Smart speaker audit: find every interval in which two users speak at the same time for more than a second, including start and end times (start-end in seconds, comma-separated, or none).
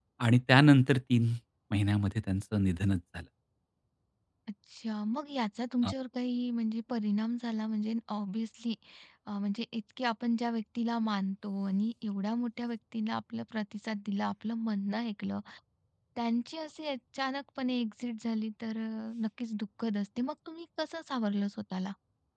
none